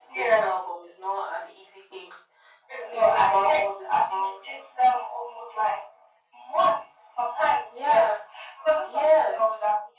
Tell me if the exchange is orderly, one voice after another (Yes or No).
No